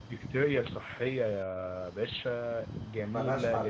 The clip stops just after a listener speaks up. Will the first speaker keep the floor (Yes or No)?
Yes